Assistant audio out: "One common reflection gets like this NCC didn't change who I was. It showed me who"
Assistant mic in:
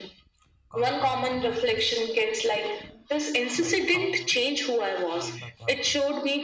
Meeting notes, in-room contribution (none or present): present